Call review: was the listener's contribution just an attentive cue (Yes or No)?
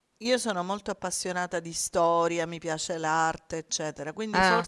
Yes